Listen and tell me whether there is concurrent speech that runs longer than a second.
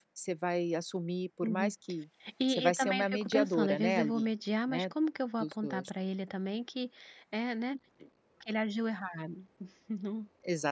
Yes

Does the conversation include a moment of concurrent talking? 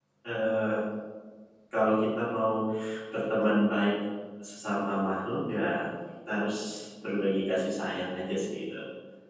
No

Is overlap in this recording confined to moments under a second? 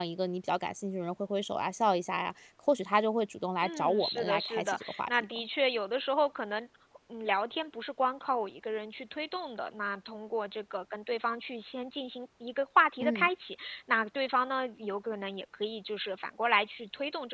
No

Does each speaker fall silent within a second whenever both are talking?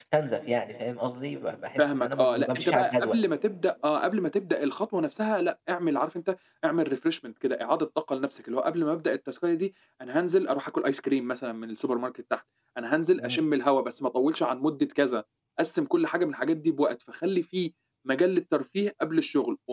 No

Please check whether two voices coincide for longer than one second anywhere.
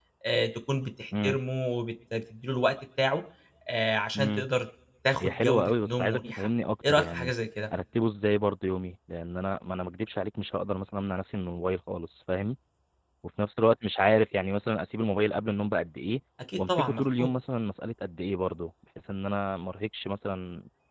Yes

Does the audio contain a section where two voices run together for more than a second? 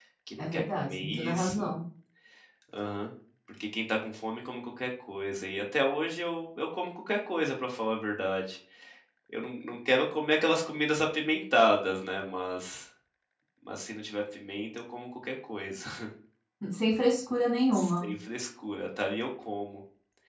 Yes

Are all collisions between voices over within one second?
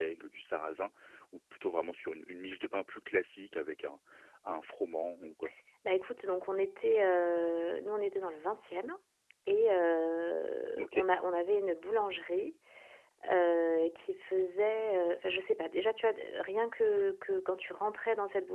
Yes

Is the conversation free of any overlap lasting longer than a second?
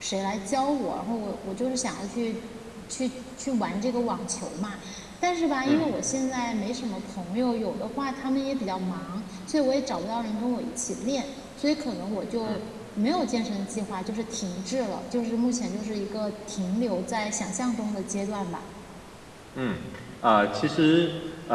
Yes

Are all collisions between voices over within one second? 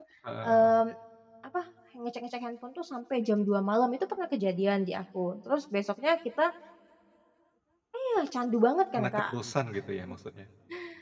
Yes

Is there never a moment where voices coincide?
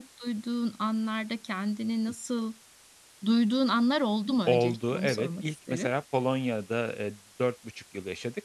No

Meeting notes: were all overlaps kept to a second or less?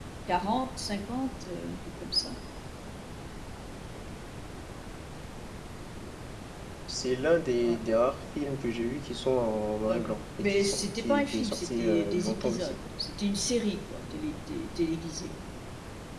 No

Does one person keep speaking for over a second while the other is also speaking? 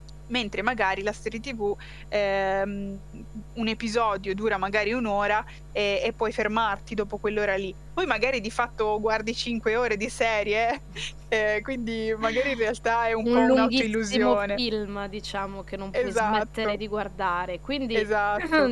Yes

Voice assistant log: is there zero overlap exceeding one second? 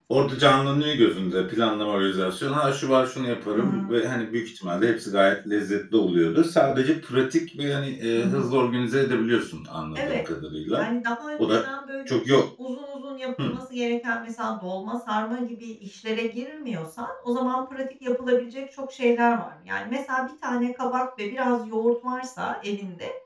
Yes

